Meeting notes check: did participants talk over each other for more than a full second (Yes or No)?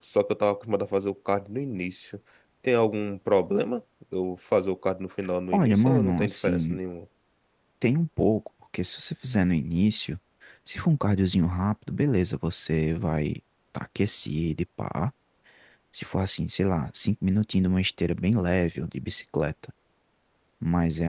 Yes